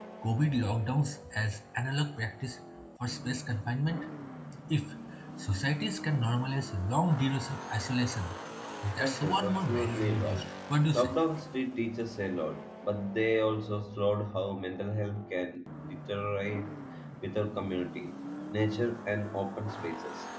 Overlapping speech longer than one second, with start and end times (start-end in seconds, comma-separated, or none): 9.0-10.4